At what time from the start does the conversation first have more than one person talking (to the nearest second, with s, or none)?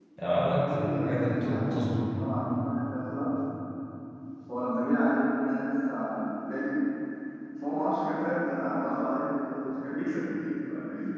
1 s